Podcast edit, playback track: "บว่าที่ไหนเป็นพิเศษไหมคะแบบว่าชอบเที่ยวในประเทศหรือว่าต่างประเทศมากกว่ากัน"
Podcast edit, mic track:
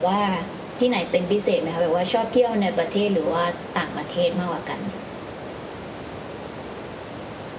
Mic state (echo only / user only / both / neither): echo only